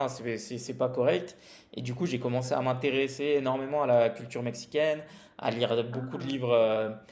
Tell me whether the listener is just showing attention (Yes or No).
Yes